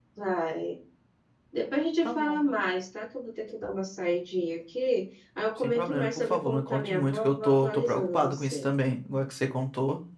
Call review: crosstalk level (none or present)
present